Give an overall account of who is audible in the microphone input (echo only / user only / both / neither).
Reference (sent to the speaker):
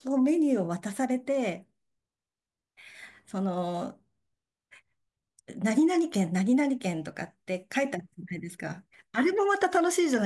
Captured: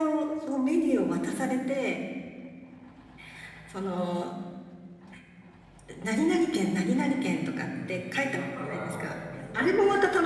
both